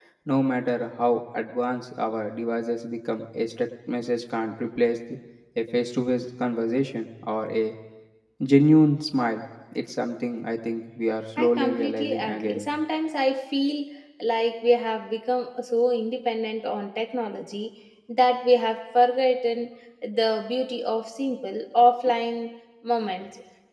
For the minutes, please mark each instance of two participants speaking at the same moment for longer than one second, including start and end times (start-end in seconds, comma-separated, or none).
11.4-12.7